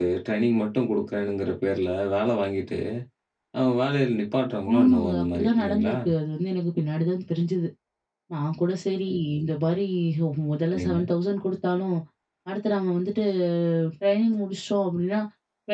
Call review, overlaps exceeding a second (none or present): present